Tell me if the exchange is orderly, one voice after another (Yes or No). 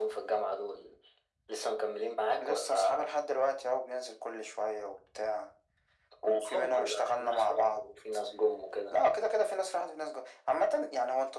No